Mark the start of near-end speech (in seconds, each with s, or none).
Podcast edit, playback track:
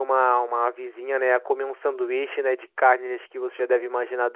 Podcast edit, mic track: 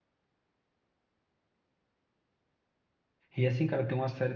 3.4 s